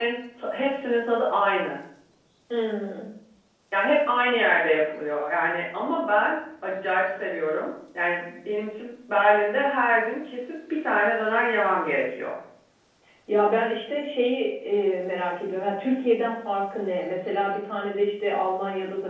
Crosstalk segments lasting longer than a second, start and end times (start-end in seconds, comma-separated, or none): none